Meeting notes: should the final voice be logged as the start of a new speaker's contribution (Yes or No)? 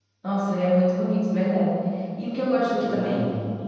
No